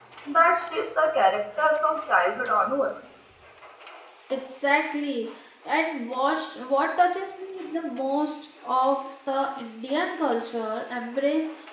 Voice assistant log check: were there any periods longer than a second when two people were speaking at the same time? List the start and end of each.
none

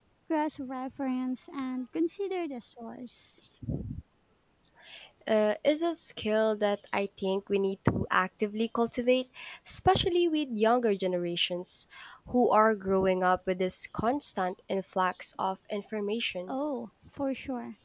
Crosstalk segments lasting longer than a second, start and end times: none

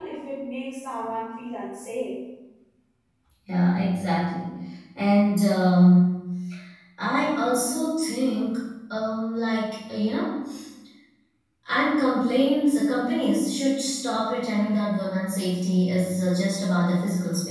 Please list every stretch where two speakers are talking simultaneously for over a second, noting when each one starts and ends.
none

